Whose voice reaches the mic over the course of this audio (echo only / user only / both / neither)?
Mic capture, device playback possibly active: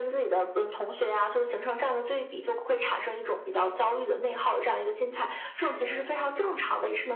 both